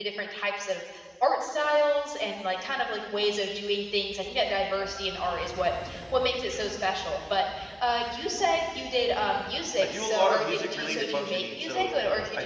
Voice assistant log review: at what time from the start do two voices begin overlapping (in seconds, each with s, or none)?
9.8 s